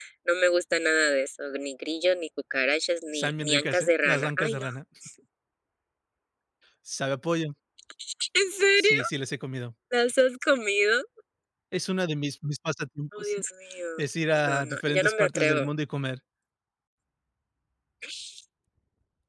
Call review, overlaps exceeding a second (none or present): present